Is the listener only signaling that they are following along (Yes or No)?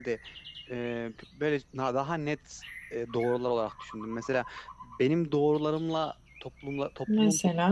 Yes